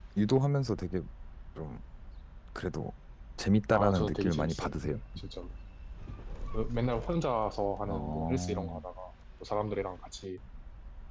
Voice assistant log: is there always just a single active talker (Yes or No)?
No